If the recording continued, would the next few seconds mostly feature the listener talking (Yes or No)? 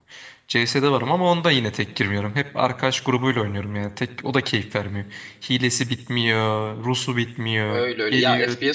Yes